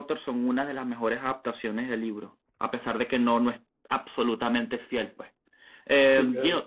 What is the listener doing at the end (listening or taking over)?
taking over